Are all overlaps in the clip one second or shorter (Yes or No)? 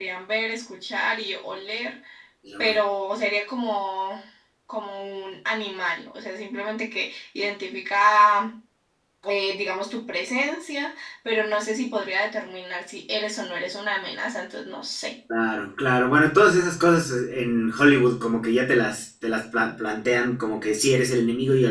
Yes